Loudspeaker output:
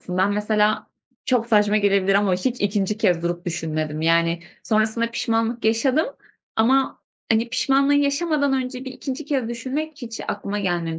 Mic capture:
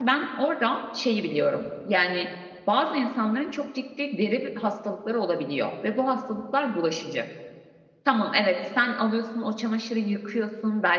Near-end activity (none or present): present